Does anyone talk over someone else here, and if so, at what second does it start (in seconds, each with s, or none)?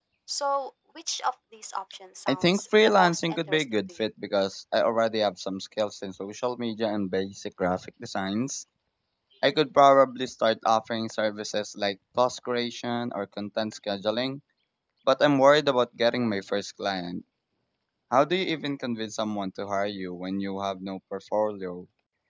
2.3 s